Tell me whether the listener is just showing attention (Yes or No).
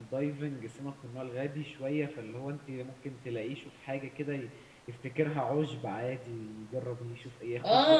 No